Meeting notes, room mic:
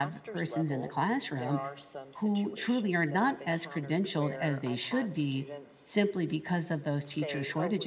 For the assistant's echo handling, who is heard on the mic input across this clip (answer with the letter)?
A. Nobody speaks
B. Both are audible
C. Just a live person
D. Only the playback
B